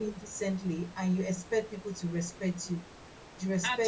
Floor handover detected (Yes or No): No